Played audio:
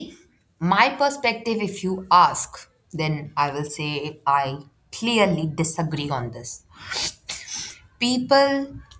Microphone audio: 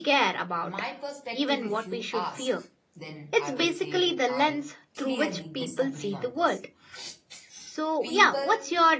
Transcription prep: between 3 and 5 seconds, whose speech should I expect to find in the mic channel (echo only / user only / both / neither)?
both